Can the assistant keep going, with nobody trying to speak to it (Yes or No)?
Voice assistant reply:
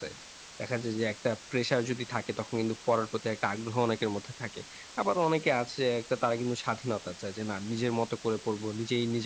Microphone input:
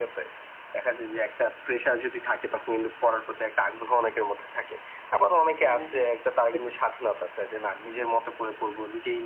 No